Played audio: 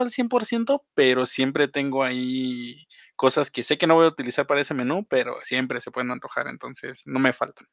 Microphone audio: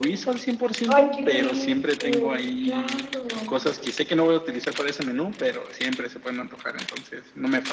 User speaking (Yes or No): Yes